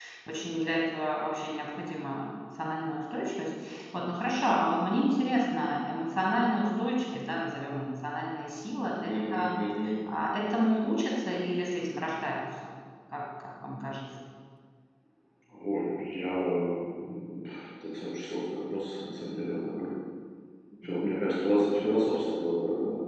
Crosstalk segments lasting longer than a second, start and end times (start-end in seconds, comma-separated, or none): none